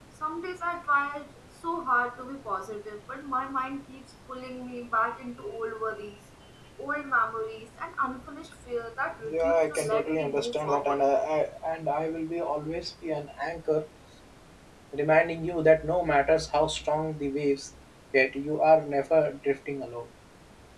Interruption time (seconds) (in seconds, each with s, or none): 9.2 s